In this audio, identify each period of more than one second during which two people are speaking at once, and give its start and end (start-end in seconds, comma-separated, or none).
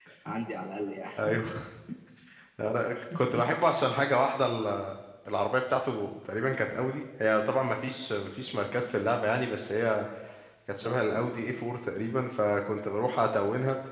none